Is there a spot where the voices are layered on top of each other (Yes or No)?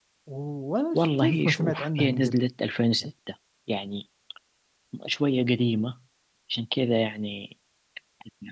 Yes